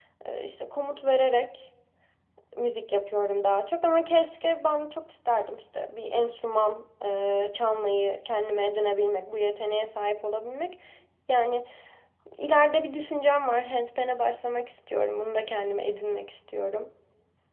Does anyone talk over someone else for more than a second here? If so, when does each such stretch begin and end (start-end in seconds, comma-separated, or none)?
none